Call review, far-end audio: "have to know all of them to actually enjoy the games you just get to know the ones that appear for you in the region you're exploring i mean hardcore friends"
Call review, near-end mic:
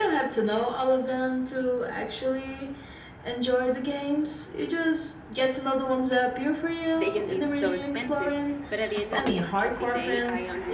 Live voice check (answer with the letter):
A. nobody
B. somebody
B